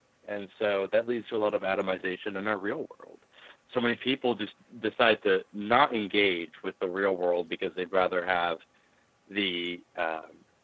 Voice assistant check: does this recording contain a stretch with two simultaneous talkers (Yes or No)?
No